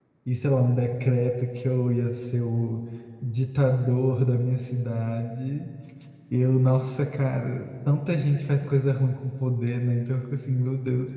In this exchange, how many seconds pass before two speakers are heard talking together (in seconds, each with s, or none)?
none